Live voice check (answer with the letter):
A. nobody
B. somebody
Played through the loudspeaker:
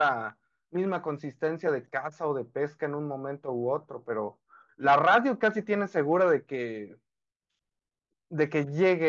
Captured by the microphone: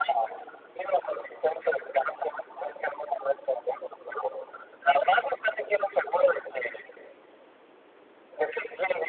A